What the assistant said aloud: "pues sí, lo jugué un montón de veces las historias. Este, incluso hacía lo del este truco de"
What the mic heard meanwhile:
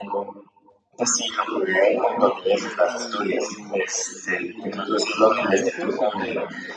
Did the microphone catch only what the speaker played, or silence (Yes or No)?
No